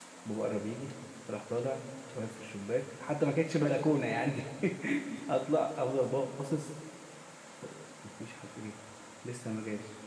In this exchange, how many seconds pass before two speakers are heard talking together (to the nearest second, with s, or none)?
none